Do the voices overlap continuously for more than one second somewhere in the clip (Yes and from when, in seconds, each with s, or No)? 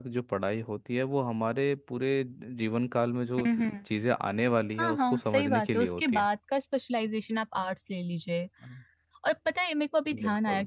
Yes, from 4.8 s